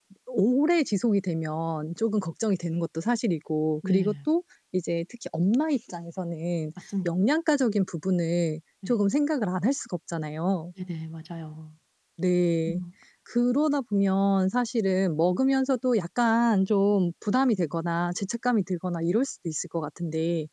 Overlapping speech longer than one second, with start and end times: none

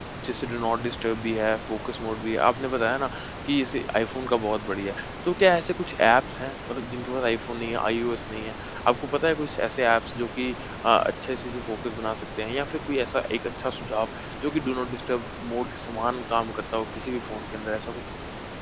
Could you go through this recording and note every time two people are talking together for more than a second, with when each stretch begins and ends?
none

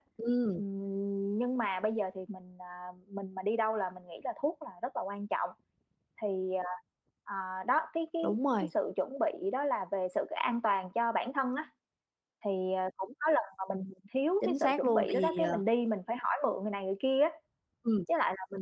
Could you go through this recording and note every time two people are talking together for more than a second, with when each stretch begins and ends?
14.4-15.6

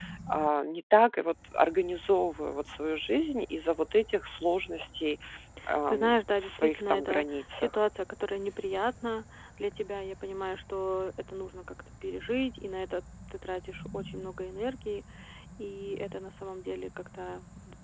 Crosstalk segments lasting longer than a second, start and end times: 6.4-7.7

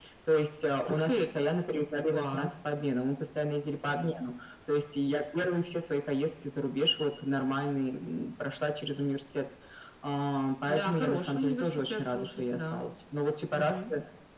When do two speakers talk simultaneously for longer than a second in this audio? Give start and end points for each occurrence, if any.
10.7-12.9

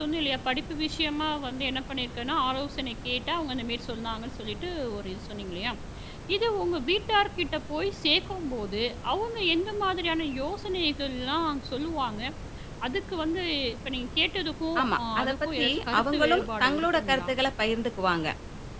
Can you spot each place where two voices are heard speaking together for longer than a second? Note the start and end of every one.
14.8-17.3

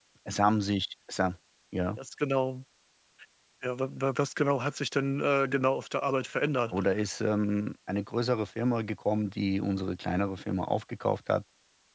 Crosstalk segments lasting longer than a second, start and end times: none

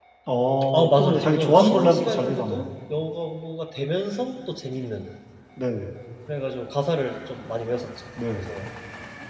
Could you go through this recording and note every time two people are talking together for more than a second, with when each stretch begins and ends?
0.7-2.7

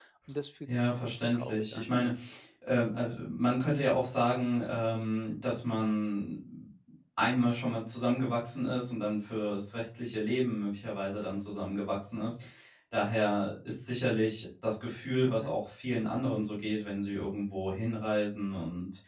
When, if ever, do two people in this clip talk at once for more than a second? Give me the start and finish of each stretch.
0.7-1.9

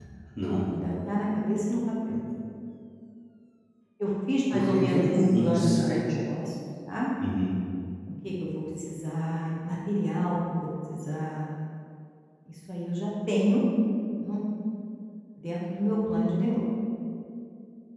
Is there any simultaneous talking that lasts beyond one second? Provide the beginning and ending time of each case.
4.5-6.0

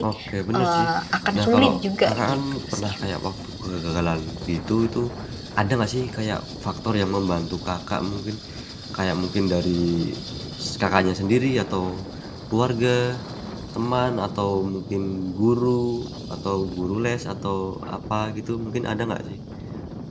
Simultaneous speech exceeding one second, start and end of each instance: 1.4-2.9

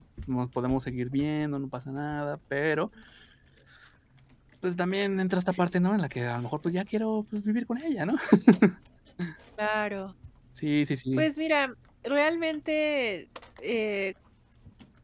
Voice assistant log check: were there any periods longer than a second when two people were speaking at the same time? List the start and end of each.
none

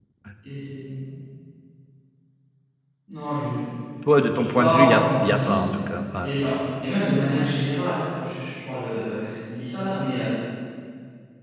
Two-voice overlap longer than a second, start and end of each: 4.3-5.7

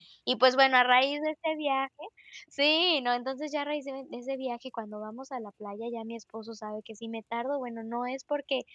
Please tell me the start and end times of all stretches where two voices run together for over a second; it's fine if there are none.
none

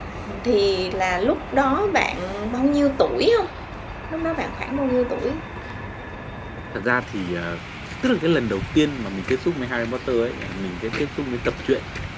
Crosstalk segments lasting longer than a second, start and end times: none

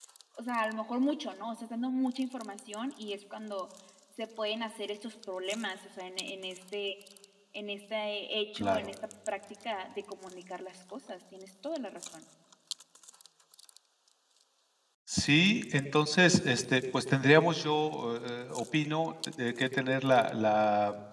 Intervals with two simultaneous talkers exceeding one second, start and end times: none

